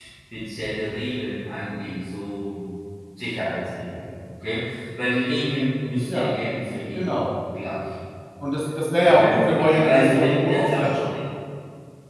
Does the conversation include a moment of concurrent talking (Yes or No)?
Yes